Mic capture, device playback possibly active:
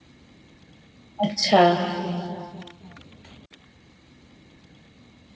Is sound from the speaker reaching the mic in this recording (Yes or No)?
No